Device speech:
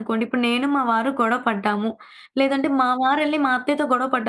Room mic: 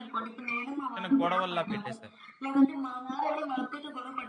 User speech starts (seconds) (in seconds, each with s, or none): 1.0 s